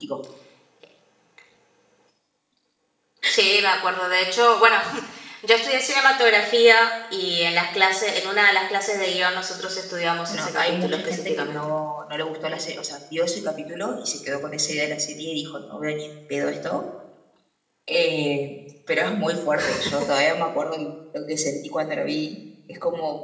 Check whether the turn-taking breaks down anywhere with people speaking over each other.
Yes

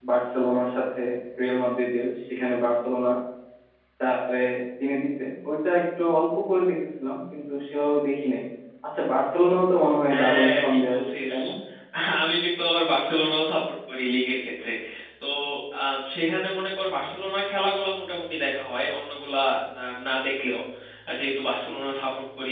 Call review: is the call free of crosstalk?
No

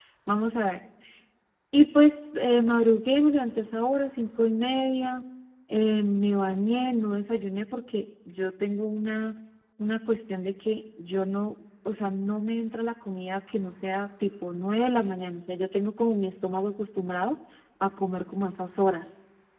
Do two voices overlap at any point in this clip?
No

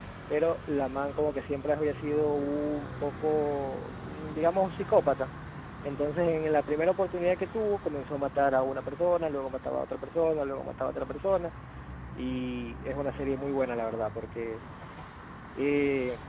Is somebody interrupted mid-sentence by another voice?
No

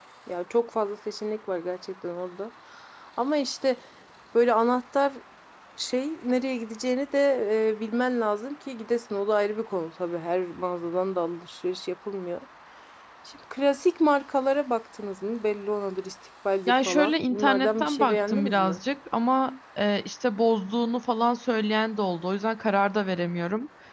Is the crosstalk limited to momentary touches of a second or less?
No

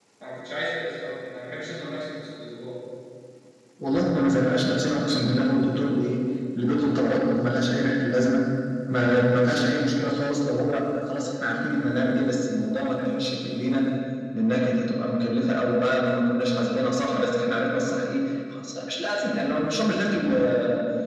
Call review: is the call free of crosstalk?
Yes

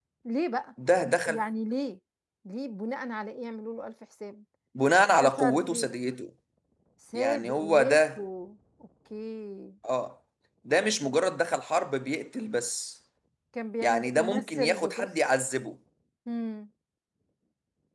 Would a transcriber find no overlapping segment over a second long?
No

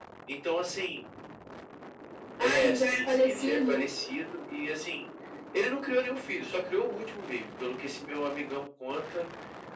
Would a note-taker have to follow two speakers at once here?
Yes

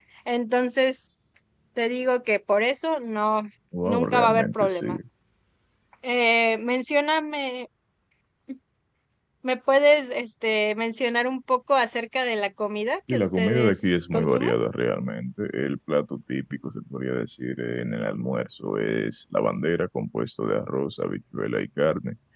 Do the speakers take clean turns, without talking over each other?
No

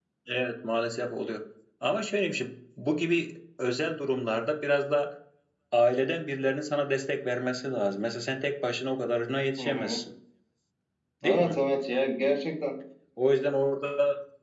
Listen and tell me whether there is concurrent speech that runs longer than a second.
No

